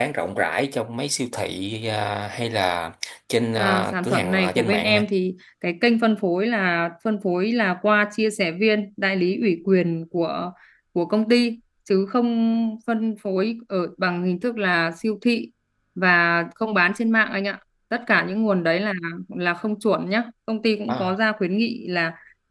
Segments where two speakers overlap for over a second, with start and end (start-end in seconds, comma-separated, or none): 3.5-5.1